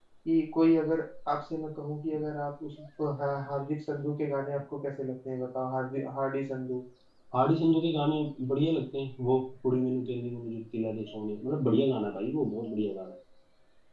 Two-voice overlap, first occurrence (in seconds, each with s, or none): none